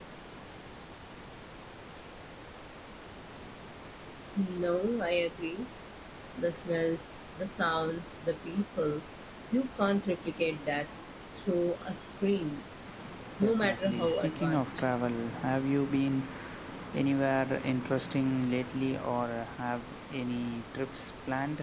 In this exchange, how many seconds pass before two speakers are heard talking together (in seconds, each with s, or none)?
13.4 s